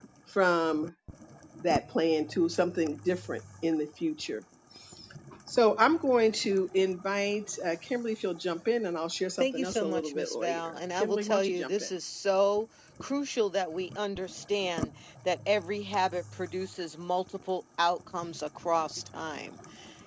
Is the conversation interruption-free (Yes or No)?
No